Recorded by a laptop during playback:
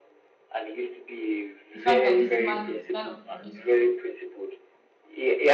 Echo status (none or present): present